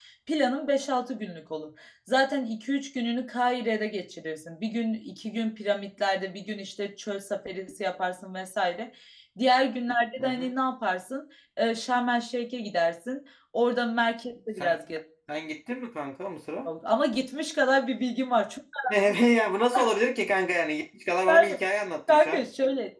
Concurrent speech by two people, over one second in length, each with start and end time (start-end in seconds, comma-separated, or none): none